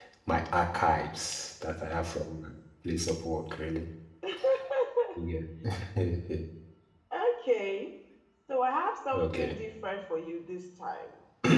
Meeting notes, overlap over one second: none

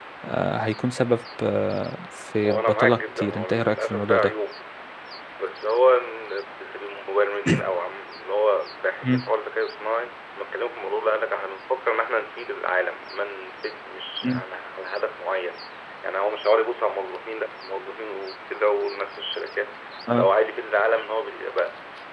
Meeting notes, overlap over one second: present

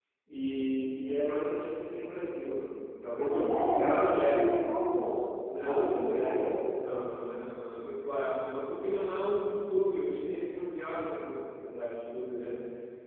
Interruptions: present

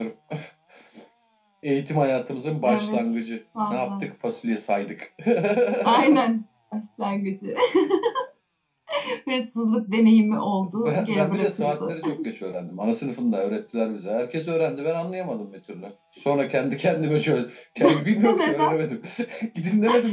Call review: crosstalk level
present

